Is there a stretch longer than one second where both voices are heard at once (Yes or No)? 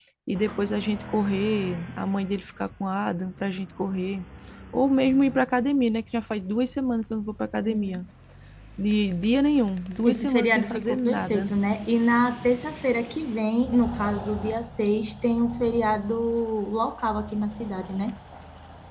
Yes